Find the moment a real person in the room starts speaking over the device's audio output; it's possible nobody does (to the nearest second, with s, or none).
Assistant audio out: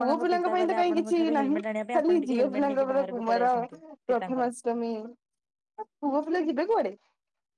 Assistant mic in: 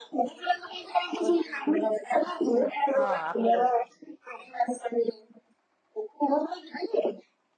3 s